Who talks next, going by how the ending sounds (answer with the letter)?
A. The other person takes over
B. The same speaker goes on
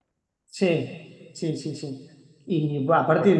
B